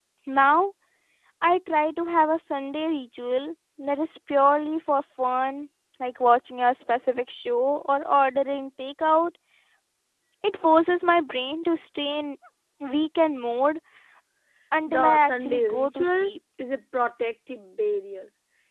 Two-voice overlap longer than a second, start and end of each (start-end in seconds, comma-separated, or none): 14.9-16.3